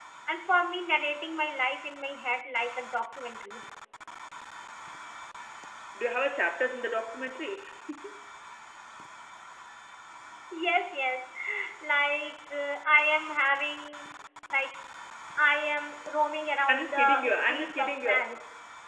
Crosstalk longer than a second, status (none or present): present